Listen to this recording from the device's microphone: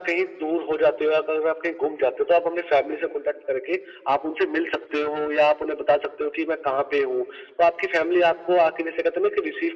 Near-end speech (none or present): none